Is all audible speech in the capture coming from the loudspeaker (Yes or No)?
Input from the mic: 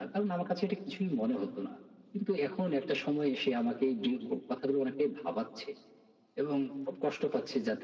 Yes